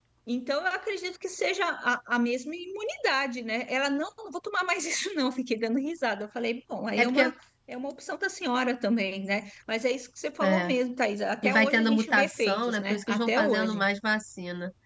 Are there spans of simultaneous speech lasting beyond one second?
Yes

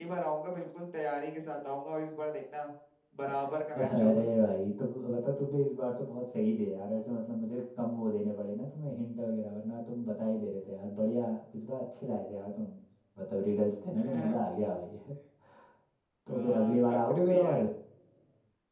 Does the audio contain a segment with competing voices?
Yes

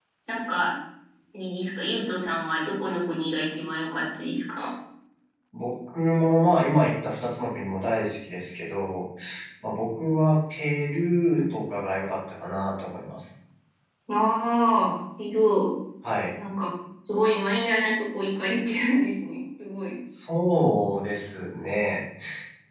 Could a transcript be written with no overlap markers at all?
Yes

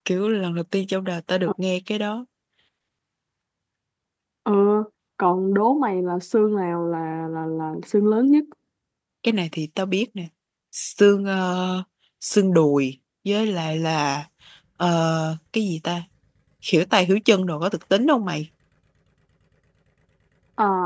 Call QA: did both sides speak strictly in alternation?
Yes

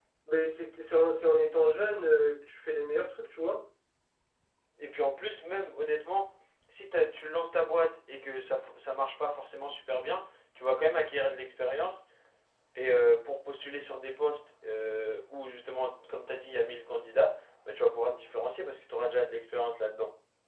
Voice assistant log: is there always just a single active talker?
Yes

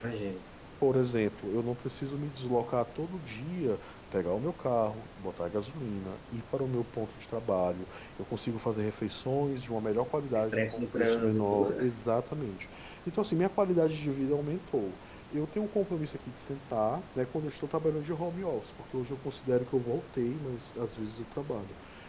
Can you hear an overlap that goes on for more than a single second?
Yes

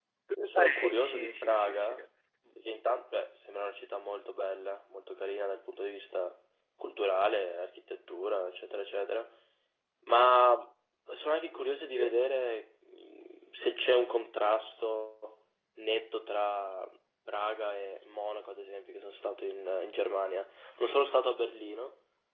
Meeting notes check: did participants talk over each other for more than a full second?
Yes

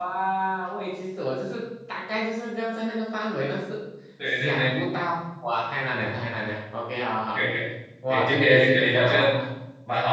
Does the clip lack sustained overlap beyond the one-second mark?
No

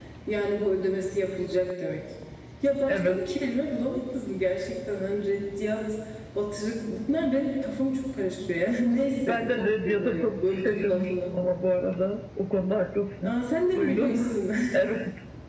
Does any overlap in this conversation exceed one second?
Yes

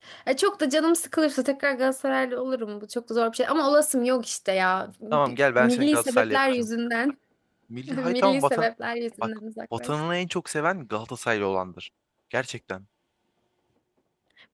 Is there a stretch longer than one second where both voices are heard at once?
Yes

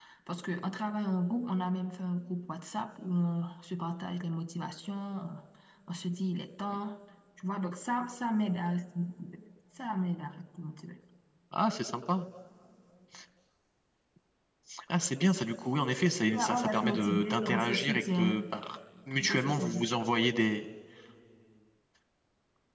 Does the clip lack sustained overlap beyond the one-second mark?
No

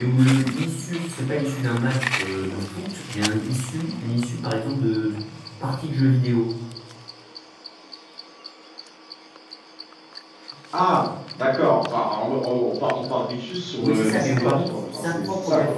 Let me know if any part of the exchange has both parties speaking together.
Yes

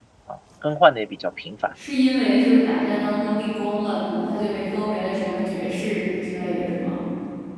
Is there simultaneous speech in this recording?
No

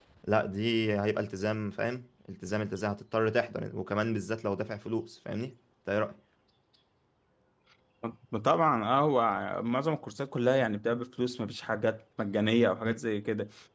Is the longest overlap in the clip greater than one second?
No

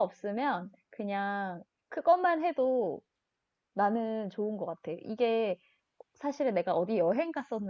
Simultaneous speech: No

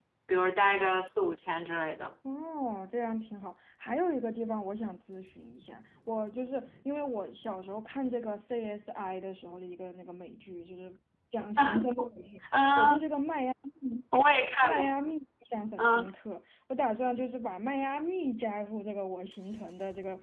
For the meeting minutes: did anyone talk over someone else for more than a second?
No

